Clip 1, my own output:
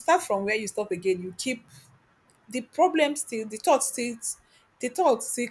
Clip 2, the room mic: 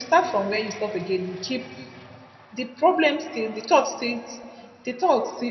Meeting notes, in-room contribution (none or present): none